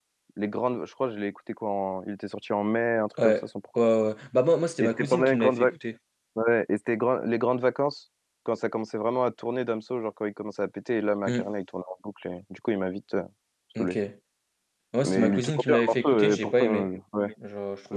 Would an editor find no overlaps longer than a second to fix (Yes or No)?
No